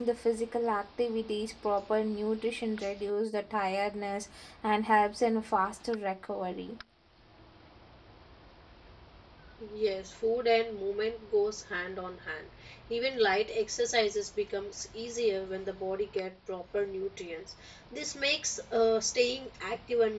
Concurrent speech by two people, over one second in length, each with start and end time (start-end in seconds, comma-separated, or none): none